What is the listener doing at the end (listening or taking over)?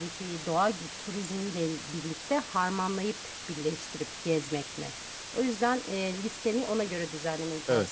taking over